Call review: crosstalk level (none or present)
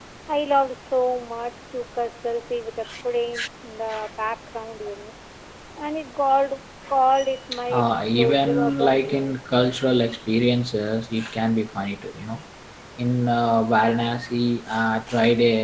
present